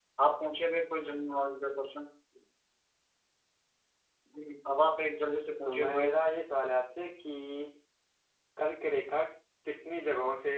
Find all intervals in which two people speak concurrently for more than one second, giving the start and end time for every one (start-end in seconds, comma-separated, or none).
none